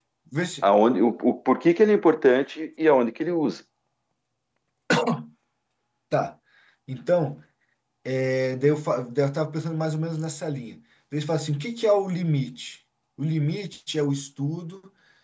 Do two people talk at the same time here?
No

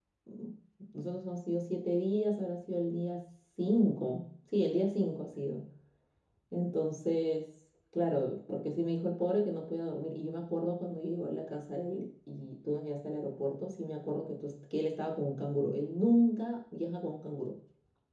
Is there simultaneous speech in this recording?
No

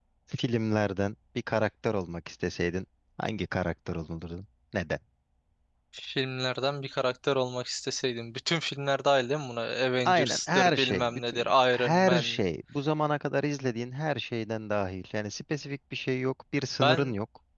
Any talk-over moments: Yes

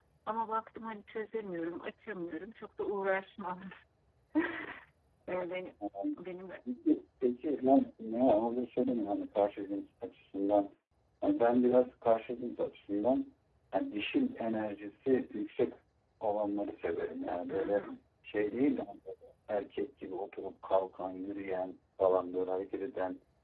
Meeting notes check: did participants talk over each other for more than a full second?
No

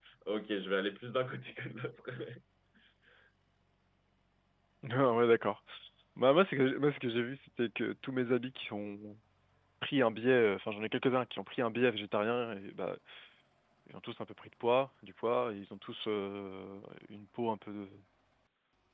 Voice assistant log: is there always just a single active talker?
Yes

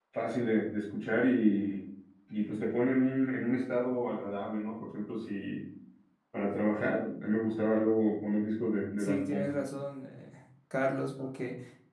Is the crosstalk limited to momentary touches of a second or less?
Yes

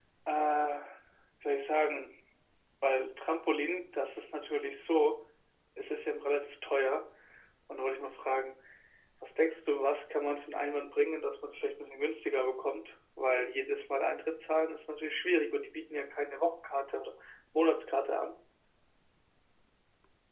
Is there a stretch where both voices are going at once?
No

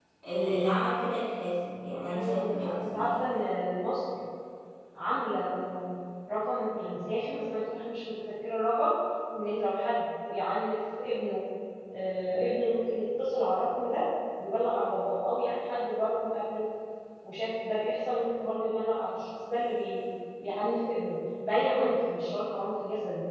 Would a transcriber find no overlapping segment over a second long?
No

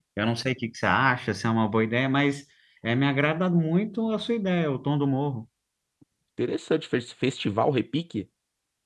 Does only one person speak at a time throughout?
Yes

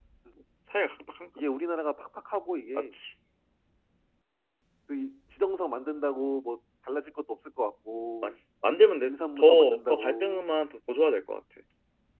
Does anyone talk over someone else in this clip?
Yes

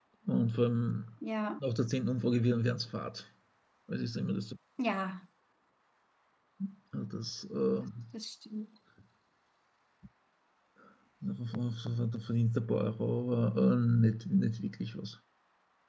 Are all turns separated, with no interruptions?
Yes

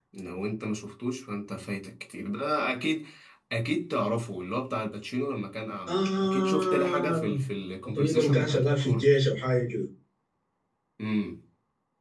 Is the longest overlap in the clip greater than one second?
Yes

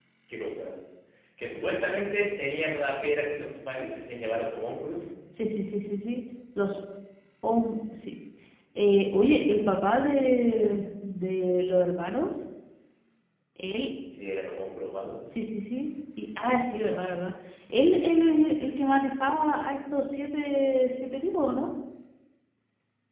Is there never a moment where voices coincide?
Yes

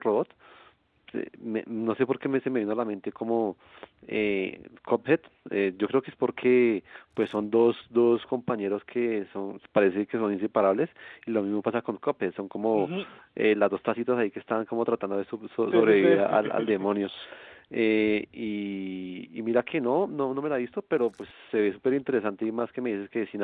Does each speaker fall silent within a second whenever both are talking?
No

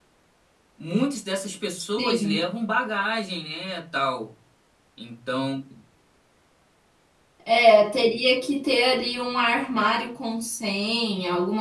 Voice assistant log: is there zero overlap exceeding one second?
Yes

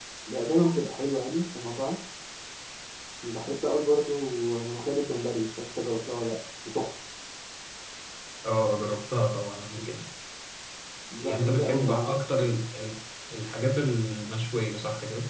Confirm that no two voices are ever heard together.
No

